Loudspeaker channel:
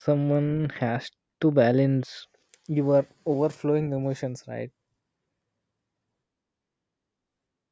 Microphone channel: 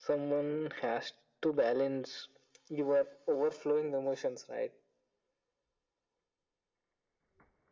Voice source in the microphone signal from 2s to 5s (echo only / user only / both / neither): echo only